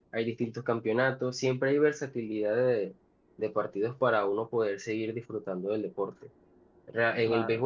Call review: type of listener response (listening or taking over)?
listening